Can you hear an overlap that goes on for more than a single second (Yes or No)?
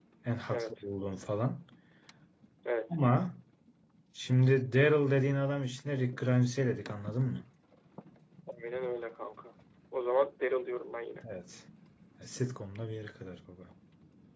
No